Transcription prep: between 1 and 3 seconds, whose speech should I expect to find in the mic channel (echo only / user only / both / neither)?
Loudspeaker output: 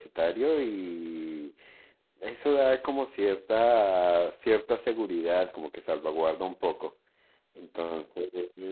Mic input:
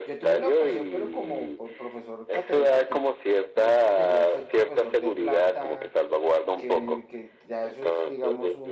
both